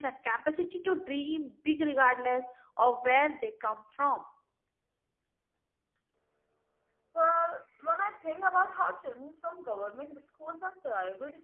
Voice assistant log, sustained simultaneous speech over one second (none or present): none